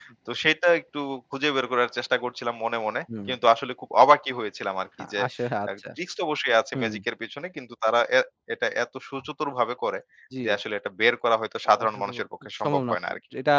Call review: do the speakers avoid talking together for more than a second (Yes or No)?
Yes